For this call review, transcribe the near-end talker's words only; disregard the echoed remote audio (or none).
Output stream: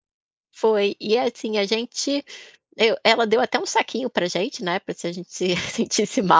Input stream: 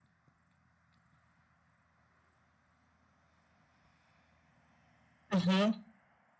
Uhum,